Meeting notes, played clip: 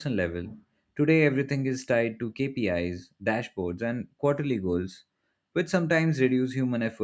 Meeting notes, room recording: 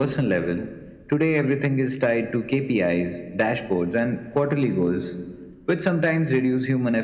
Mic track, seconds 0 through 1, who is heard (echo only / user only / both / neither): echo only